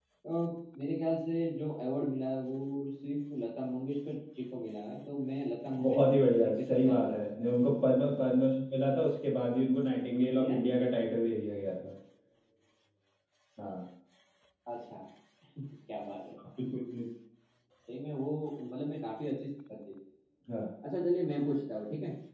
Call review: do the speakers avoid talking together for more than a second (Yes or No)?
No